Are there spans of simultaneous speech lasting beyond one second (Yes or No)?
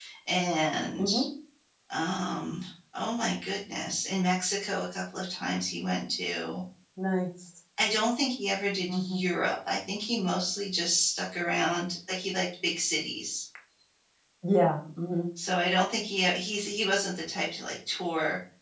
No